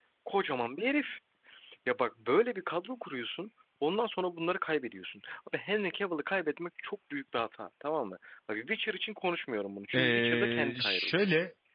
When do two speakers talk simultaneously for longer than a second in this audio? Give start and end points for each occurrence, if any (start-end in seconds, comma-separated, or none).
9.9-11.2